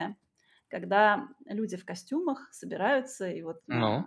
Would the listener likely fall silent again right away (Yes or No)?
Yes